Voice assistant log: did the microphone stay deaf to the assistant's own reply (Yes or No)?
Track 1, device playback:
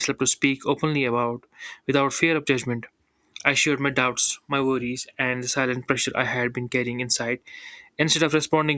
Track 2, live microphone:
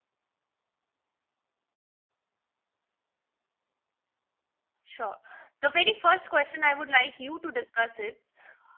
Yes